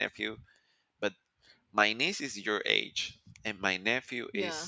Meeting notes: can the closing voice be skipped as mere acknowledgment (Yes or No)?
Yes